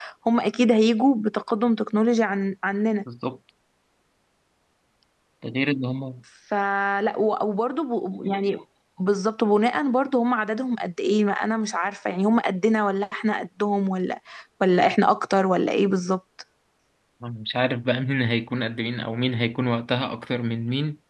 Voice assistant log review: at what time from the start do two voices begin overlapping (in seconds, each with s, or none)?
none